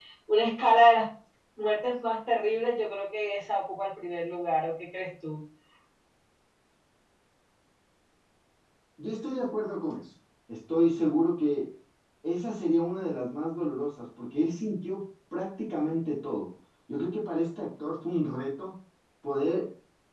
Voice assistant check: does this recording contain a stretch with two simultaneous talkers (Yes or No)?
No